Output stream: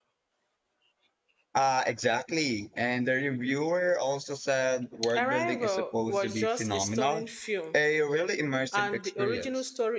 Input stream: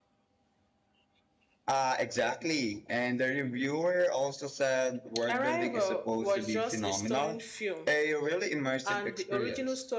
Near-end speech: none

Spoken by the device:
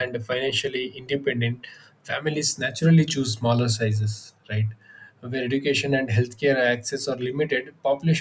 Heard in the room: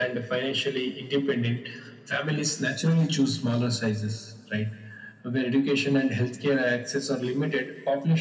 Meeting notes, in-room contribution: none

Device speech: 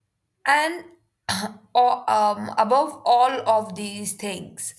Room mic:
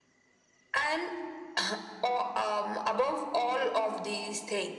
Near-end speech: none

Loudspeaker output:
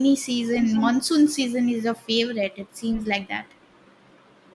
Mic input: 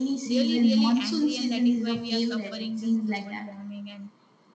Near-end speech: present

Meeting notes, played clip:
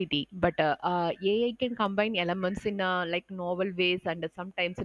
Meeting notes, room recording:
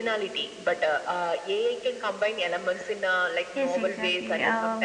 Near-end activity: present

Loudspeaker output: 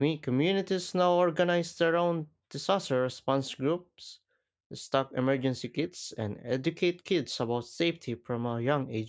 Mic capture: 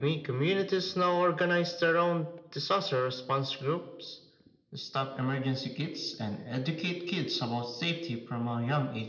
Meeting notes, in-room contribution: none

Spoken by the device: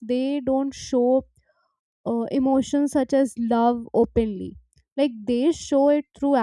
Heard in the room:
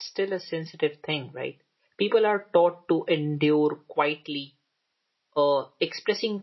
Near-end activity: present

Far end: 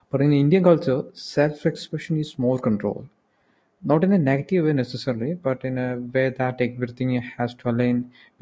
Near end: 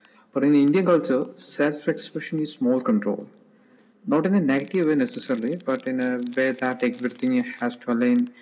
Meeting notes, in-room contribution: none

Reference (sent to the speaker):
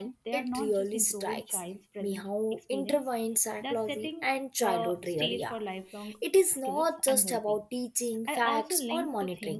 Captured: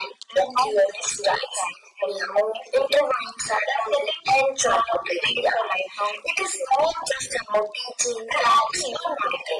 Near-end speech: none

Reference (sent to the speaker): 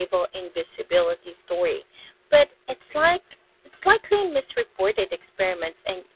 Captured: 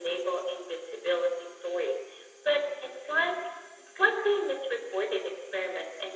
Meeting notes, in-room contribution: none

